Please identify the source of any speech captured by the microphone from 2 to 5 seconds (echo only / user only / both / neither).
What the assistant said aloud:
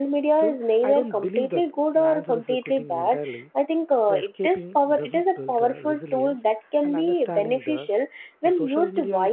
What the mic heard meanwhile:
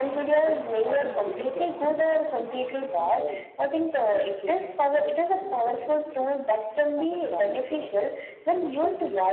echo only